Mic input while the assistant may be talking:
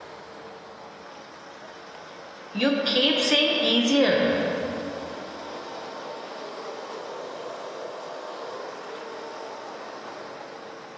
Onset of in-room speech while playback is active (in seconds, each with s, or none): 2.5 s